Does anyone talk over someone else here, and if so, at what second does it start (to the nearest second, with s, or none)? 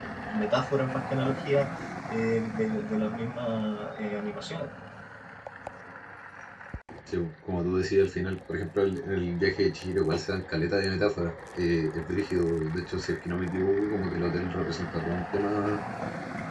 none